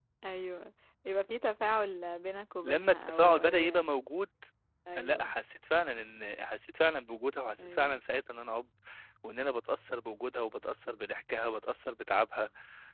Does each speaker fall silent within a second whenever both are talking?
No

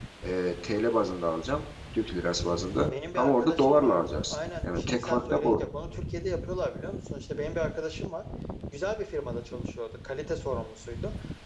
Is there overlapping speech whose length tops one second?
Yes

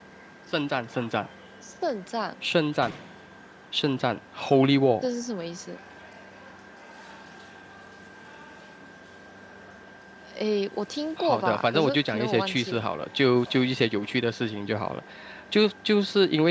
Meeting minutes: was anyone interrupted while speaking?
Yes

